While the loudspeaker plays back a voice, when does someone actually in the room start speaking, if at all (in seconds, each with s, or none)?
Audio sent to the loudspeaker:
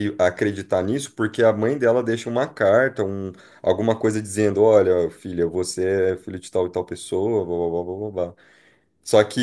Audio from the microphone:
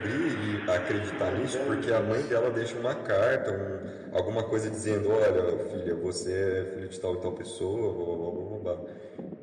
1.1 s